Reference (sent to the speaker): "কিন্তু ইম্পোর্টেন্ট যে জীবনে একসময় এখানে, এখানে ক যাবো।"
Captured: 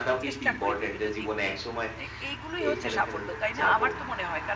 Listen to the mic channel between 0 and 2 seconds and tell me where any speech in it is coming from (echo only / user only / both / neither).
both